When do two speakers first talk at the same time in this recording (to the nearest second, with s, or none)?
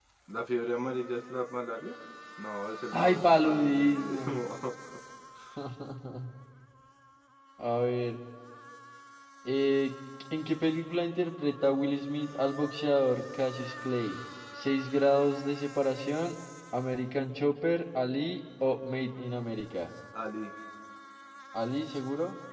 3 s